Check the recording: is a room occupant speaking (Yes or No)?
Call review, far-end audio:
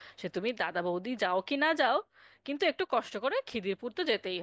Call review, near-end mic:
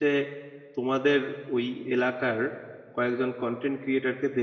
Yes